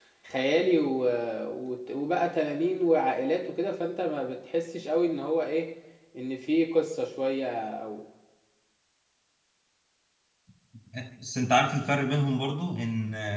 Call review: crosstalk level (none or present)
none